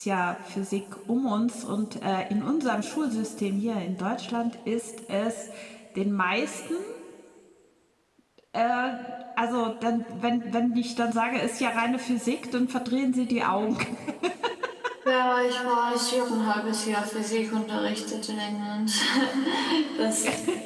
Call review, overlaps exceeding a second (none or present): none